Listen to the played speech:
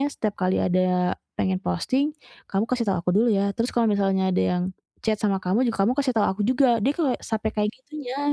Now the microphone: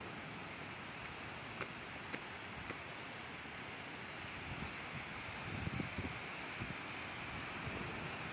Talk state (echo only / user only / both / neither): neither